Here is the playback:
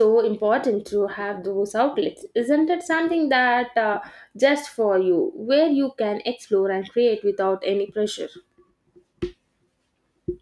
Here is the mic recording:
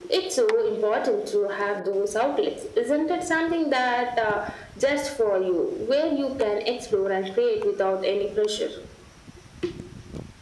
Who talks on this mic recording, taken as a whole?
echo only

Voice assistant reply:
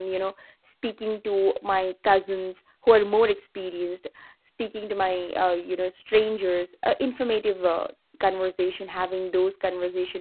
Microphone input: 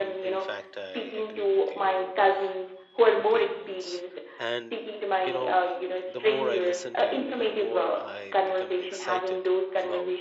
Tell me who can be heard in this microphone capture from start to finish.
both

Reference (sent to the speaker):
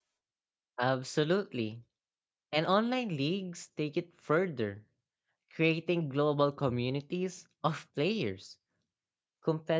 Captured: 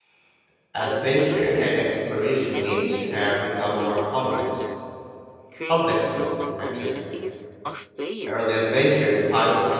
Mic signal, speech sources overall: both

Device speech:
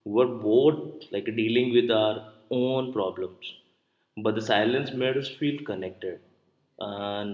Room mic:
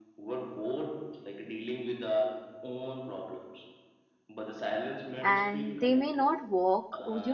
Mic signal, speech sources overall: both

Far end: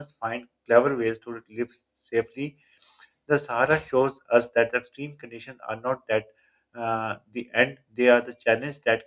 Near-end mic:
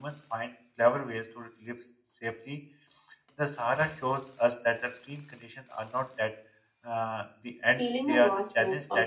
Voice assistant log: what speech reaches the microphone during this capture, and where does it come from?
both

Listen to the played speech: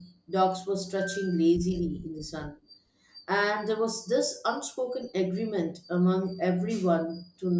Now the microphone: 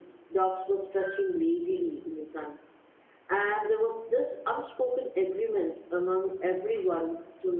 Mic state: echo only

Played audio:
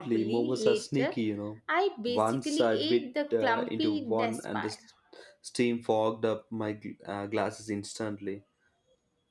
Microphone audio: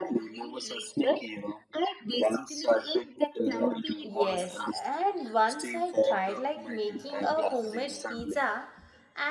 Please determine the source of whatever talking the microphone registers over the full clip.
both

